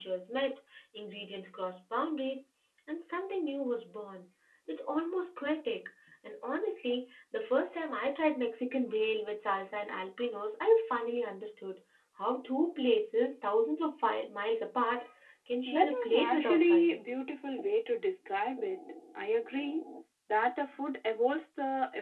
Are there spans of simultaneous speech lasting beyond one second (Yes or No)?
Yes